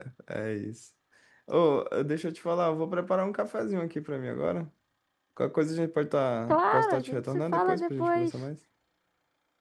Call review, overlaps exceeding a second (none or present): present